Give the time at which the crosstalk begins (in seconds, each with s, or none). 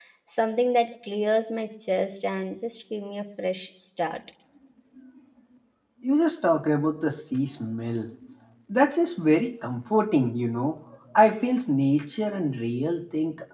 none